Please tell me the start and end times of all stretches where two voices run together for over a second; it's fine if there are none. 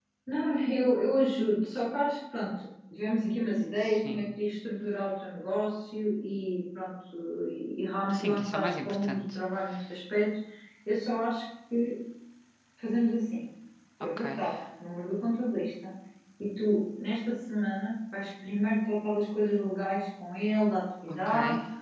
8.1-9.4

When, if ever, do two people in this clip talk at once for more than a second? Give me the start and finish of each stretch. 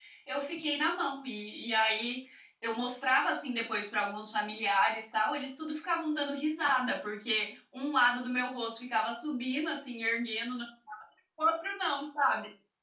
none

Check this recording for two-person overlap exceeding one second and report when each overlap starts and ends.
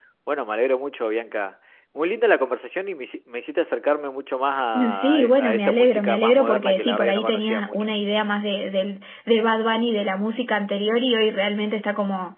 4.9-7.9

